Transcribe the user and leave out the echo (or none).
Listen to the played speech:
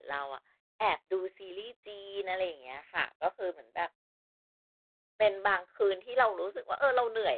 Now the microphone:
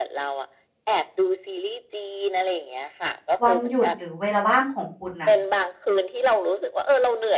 วันหยุดหรือเวลาว่างของคุณน่ะ